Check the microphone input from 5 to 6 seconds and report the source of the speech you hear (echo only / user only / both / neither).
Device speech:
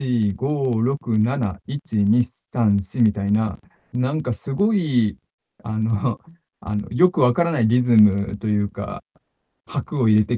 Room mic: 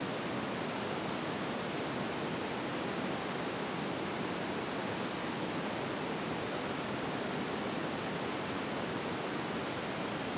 neither